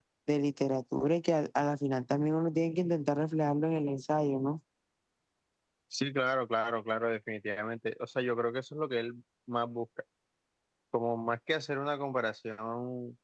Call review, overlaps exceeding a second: none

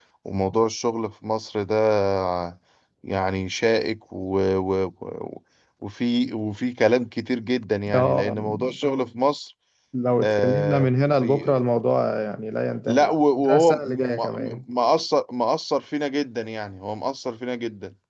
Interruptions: present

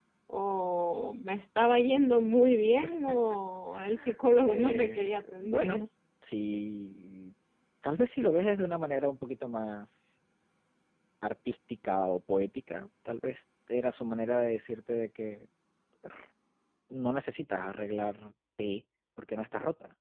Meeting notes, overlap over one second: present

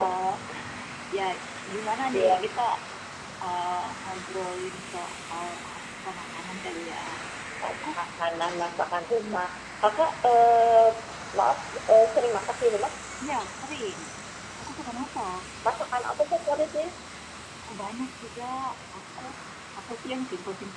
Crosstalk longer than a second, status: none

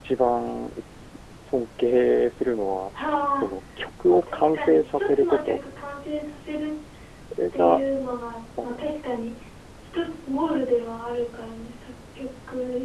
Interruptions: present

